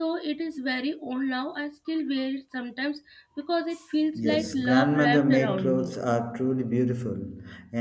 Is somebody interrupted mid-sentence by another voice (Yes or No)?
Yes